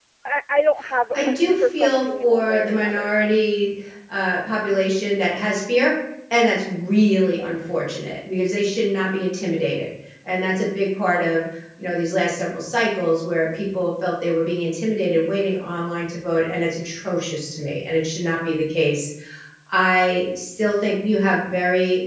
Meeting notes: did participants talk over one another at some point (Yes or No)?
Yes